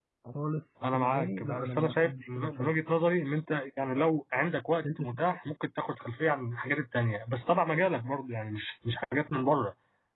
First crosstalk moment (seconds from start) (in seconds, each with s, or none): 0.9 s